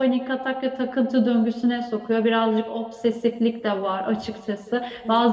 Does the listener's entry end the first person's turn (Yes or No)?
No